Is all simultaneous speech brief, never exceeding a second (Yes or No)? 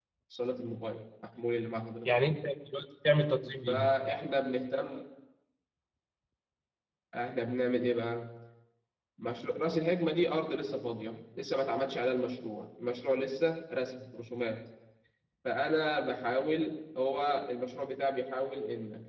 Yes